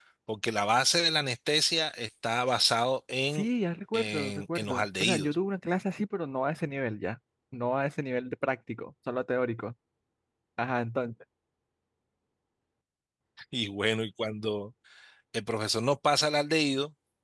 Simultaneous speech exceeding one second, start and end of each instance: 3.9-5.4

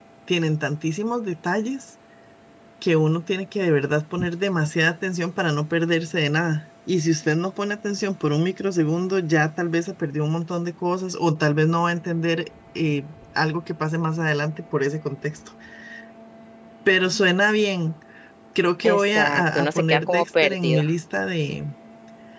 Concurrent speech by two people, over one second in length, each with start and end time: 18.8-20.8

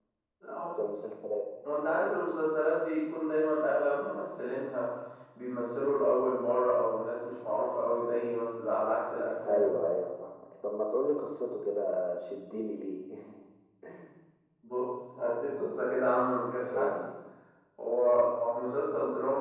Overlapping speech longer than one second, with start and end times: none

